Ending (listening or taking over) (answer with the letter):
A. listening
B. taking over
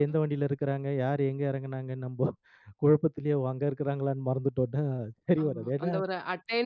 B